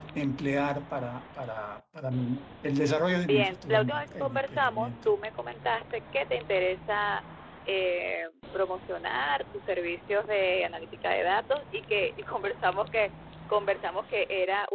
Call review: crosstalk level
present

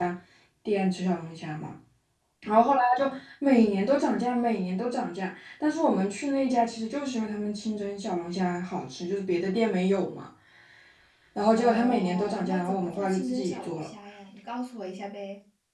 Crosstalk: present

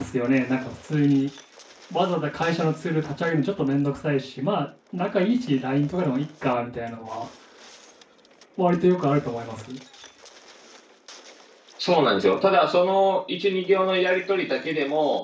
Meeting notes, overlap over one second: none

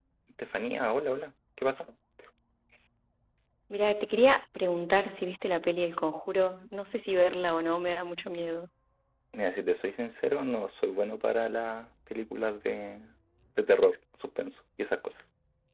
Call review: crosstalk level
none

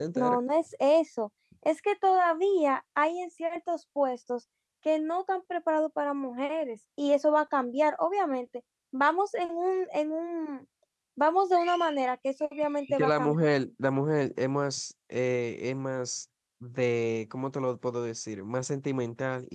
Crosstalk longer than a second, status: none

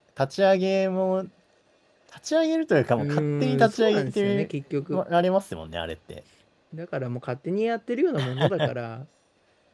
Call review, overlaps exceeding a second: present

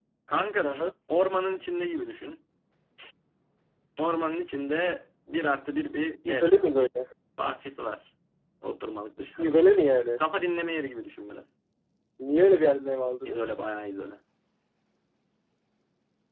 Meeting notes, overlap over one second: none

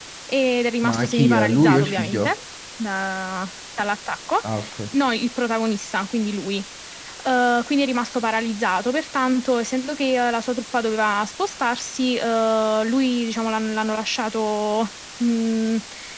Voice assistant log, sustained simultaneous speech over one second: present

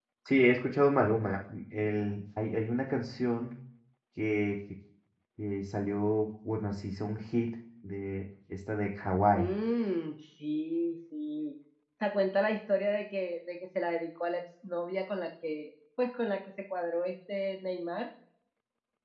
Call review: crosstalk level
none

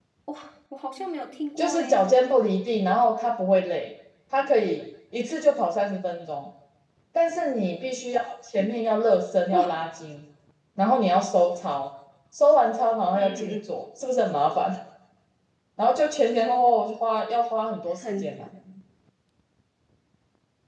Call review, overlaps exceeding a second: none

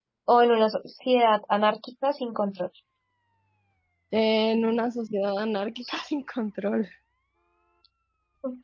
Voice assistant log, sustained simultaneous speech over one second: none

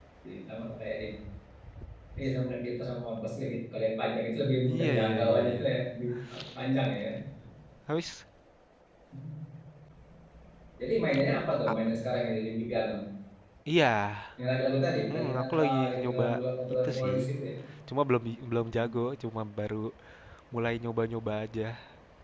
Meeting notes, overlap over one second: present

